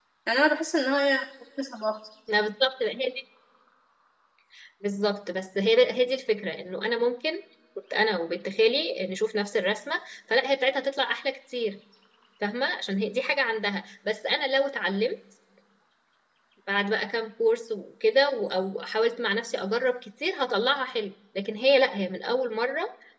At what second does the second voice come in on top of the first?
none

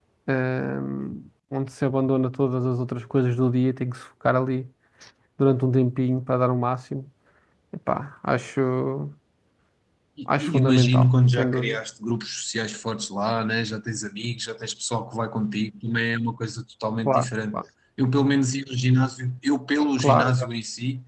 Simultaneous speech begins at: 10 s

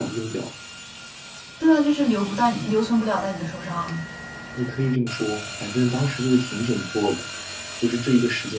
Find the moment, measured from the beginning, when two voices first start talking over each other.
none

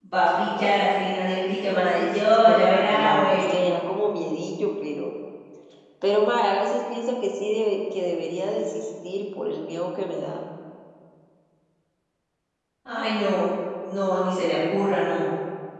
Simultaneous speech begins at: 2 s

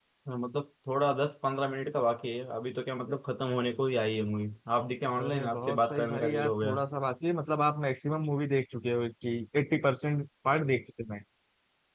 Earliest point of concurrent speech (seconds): 5 s

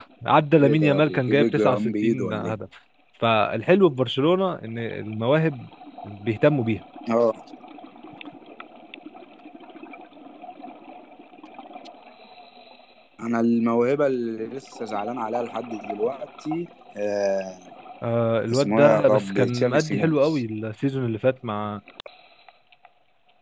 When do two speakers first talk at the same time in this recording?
1 s

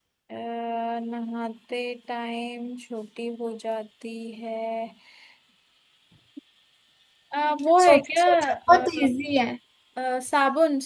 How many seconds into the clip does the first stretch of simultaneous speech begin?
8 s

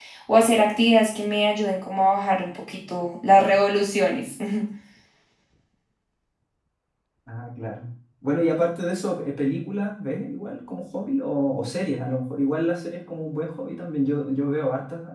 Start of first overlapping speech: none

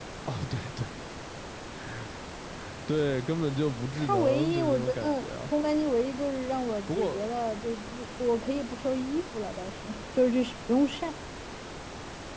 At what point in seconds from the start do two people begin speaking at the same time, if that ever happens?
4 s

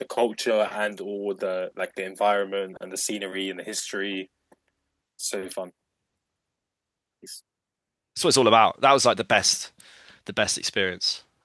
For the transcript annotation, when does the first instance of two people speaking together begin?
none

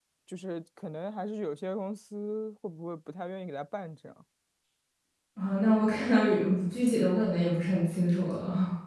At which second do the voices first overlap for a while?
none

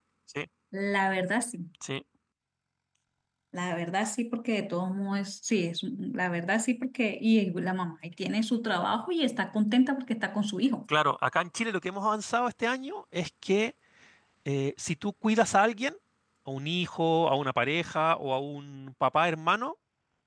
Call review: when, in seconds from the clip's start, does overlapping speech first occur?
none

